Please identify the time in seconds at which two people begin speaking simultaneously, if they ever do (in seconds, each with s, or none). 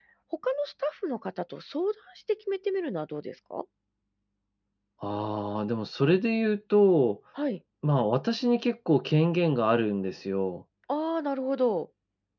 none